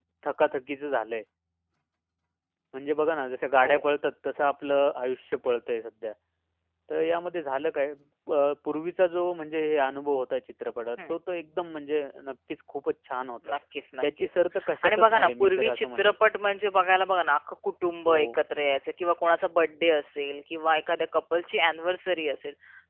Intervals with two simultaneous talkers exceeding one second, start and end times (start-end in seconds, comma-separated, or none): 14.8-16.1